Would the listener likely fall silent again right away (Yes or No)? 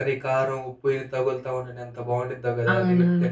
No